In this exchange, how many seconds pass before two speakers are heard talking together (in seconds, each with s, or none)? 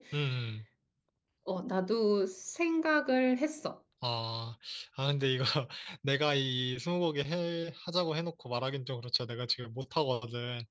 none